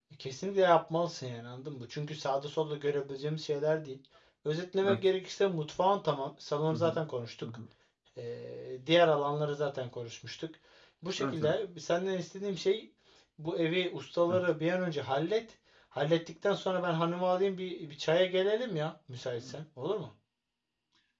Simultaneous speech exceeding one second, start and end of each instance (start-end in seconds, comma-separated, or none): none